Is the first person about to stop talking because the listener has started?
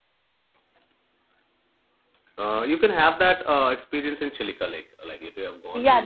Yes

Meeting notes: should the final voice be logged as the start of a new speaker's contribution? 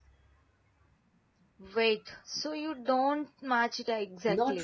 Yes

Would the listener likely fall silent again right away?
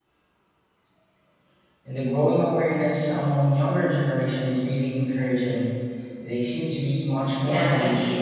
No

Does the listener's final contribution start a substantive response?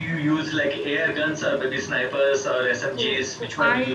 Yes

